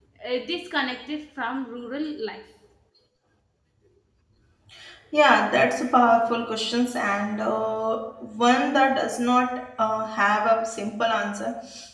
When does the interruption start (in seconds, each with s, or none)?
none